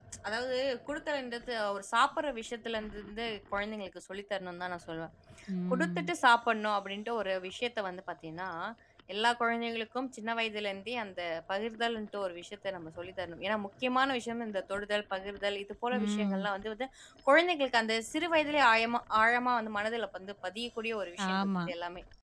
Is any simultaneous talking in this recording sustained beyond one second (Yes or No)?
No